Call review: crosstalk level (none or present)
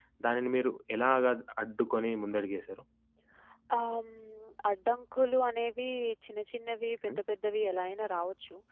none